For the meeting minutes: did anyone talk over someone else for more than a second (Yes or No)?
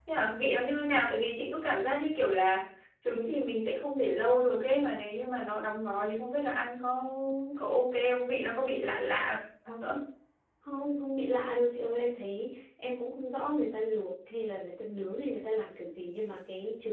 No